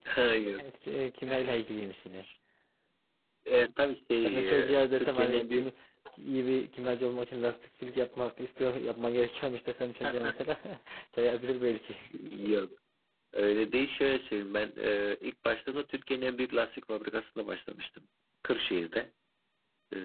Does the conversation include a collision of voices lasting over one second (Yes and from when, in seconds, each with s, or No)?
Yes, from 4.2 s